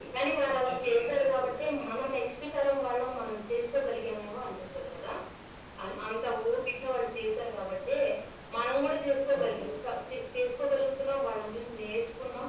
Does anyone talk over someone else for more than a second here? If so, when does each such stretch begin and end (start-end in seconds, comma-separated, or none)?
0.5-1.9